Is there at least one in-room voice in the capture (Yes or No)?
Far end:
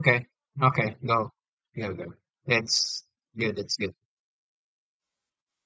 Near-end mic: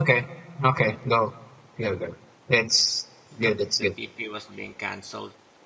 Yes